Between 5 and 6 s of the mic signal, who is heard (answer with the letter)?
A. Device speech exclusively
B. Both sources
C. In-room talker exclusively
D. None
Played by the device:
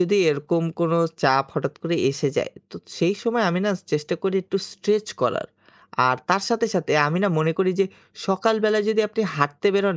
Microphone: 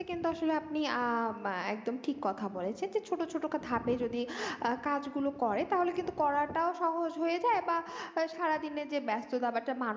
C